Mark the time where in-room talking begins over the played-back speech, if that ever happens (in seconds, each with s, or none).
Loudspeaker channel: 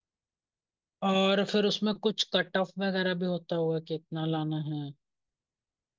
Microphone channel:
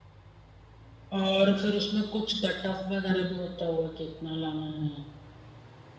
none